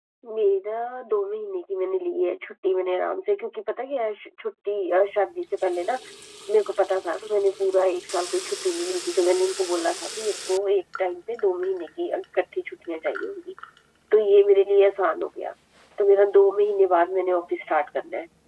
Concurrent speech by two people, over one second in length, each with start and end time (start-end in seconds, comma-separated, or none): none